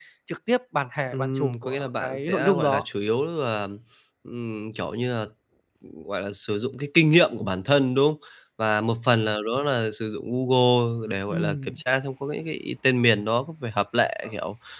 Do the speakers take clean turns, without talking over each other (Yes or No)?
No